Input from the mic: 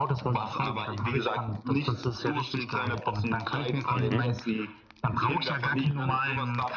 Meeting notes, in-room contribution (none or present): present